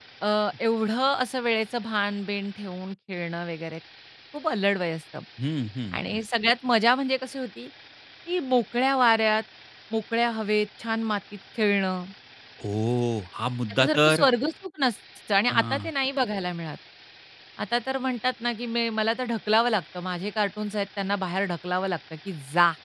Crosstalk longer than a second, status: none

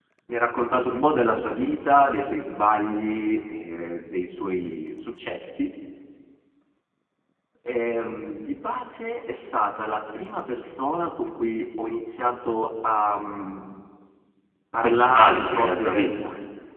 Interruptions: present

